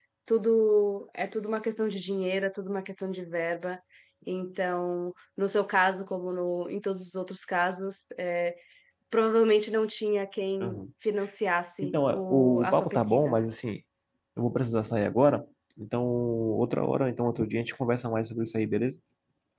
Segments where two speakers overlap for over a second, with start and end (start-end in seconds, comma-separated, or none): 11.8-13.4